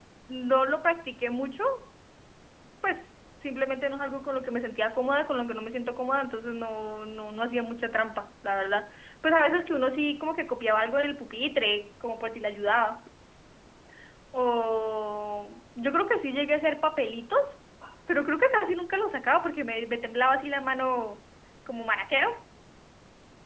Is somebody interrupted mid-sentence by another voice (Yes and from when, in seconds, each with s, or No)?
No